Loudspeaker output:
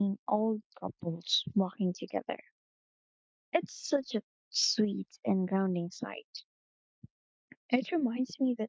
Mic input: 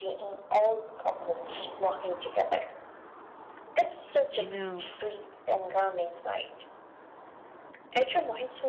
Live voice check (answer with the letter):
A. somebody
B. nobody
A